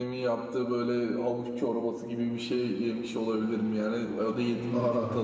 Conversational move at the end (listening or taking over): listening